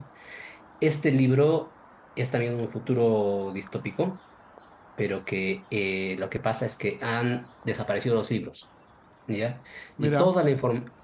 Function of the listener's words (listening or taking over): listening